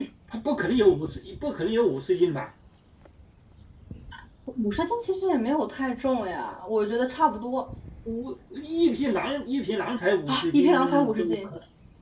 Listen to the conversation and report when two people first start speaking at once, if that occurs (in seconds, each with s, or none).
10.3 s